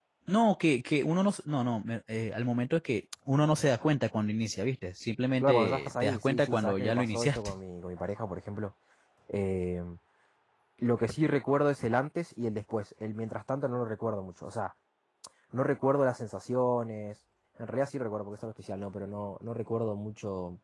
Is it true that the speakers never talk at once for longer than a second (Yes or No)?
No